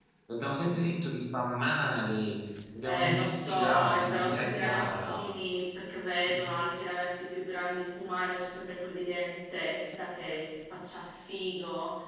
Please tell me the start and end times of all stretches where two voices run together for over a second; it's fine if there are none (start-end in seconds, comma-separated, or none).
2.8-5.2